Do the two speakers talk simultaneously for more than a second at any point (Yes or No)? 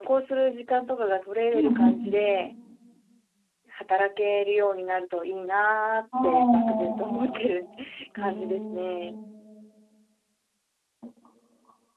Yes